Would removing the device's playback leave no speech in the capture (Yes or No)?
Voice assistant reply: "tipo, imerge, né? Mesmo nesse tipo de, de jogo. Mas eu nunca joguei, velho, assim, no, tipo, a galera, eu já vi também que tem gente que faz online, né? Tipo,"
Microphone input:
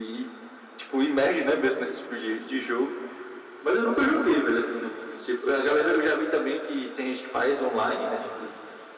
Yes